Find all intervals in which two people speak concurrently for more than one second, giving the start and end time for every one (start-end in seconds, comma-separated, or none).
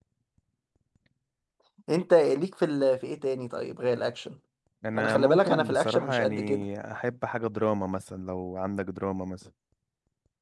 5.0-6.7